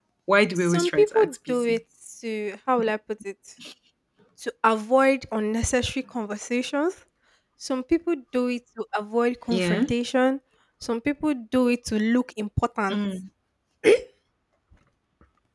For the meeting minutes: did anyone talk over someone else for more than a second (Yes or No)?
Yes